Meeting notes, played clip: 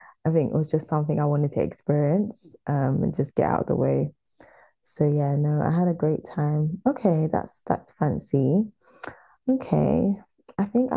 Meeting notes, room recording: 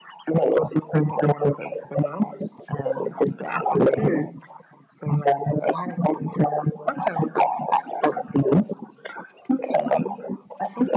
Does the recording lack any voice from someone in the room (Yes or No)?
No